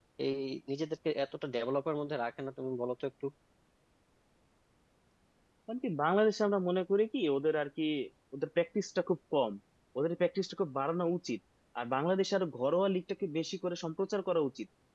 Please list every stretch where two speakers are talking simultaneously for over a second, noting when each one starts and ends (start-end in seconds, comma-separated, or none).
none